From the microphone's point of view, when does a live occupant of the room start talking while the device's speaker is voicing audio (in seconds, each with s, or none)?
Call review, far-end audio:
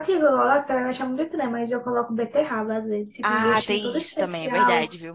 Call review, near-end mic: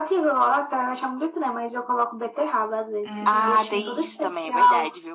3.0 s